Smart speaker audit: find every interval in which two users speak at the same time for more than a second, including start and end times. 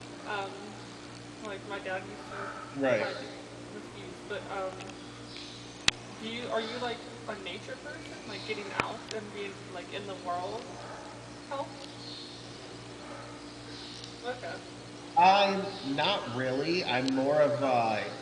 none

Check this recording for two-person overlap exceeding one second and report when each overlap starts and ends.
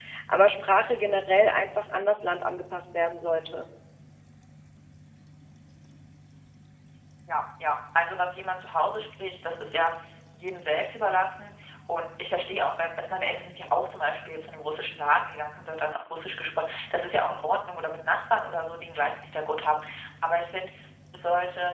none

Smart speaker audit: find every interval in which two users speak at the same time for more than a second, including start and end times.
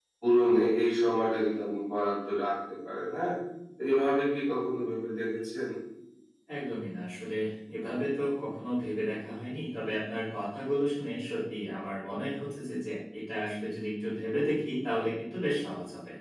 none

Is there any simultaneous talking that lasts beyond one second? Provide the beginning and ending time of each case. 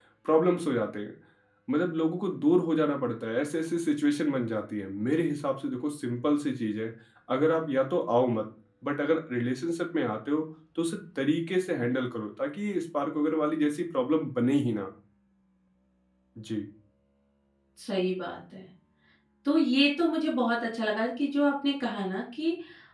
none

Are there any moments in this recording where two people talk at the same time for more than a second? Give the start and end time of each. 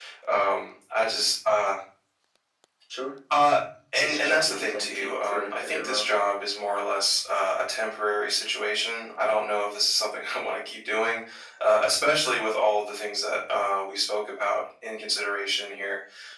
3.9-6.2

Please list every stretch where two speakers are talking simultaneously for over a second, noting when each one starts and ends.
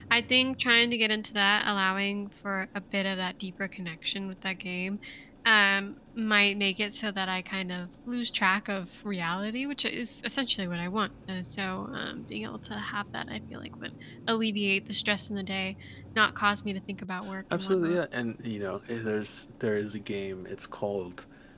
none

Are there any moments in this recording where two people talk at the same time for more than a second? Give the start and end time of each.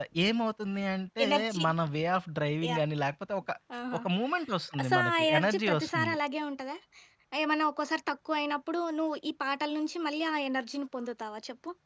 4.9-6.2

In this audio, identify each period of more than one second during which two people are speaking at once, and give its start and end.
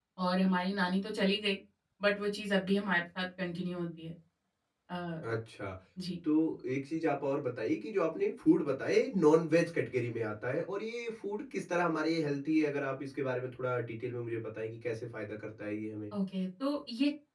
none

